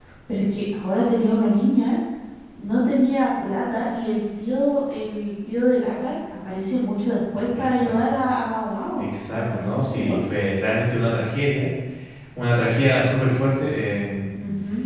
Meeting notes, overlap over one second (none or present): present